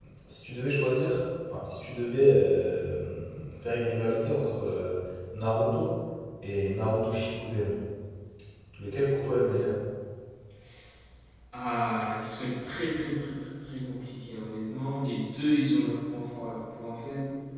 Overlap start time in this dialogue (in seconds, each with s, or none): none